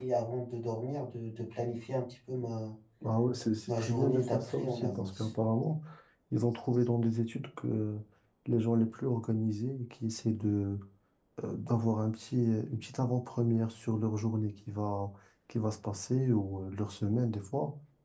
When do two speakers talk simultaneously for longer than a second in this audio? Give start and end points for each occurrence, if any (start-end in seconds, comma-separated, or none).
3.8-5.3